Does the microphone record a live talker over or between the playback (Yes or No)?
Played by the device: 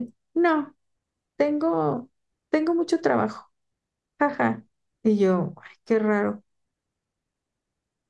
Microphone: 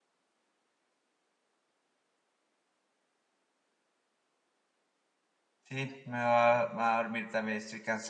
Yes